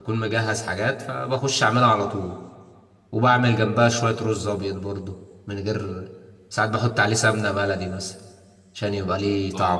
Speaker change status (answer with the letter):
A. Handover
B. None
A